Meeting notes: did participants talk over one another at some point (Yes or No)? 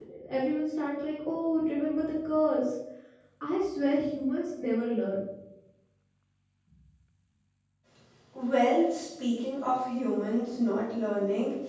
No